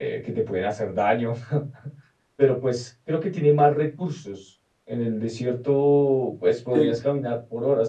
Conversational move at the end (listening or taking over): listening